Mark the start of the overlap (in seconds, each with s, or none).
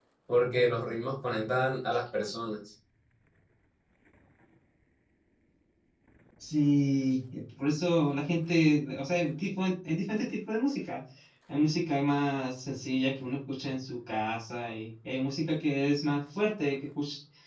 none